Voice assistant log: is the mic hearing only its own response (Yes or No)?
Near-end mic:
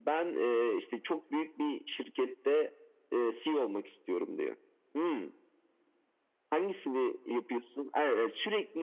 Yes